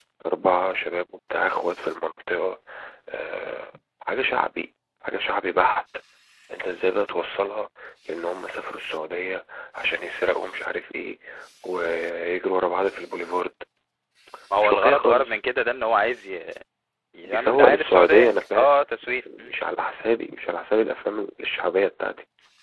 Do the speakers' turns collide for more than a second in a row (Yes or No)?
Yes